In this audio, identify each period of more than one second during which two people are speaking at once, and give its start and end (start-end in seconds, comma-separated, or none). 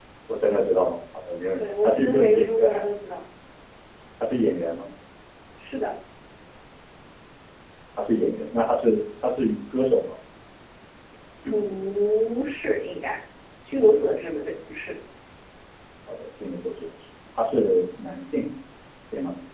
1.6-2.8